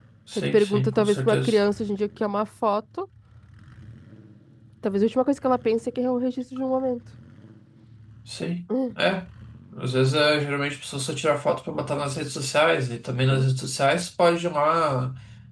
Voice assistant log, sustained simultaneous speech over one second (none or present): present